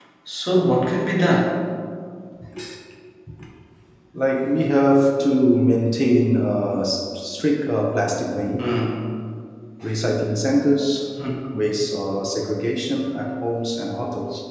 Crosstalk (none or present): none